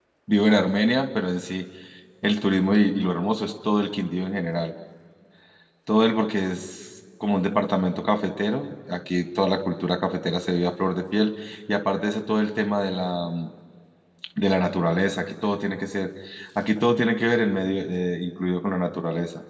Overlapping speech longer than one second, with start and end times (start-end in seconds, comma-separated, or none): none